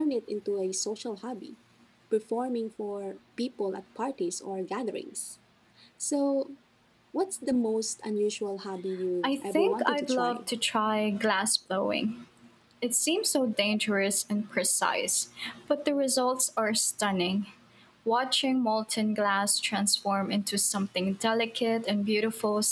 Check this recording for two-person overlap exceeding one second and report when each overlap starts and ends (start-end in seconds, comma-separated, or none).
9.2-10.4